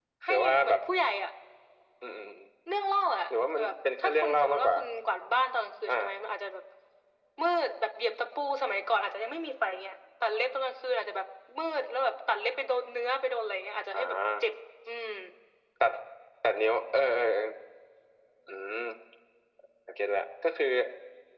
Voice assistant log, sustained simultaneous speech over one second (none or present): present